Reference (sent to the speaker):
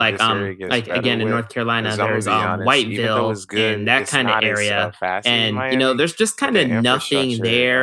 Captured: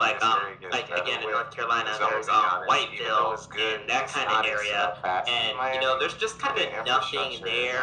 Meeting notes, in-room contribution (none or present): none